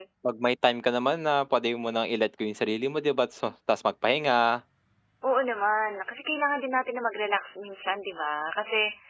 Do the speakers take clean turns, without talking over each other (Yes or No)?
Yes